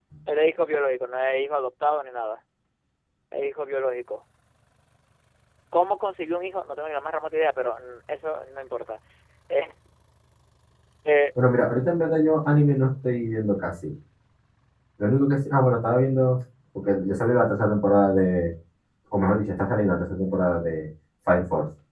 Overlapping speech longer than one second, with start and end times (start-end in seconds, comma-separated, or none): none